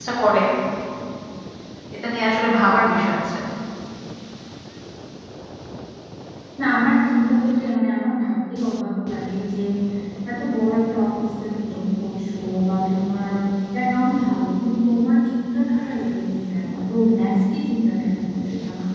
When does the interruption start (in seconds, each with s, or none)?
none